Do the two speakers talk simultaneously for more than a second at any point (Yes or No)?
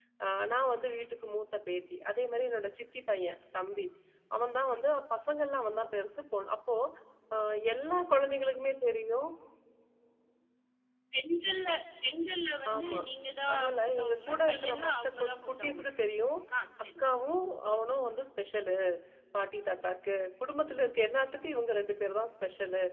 Yes